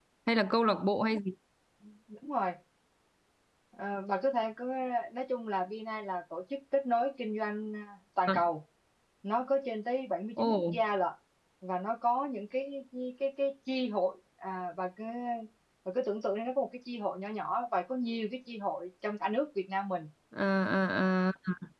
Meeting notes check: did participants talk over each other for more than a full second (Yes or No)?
No